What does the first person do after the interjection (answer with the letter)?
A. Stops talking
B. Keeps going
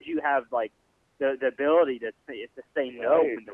B